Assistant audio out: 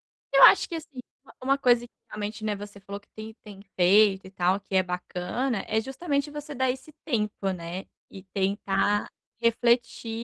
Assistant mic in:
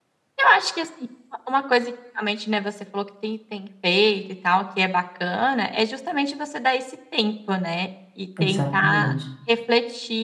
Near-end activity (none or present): present